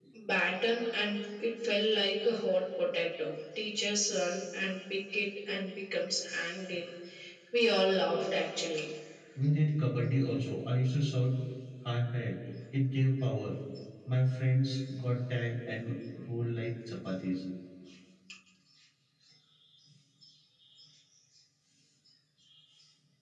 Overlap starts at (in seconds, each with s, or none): none